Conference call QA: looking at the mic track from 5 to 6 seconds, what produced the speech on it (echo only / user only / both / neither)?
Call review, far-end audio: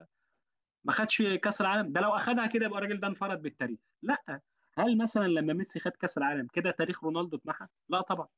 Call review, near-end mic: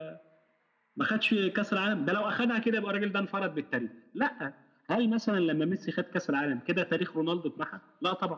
echo only